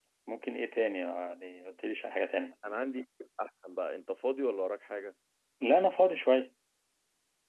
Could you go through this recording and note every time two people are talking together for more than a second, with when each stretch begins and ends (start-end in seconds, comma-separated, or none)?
none